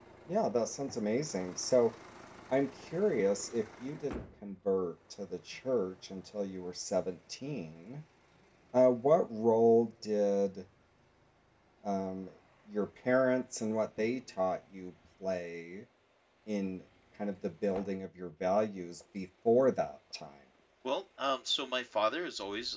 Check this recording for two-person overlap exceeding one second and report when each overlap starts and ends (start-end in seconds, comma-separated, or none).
none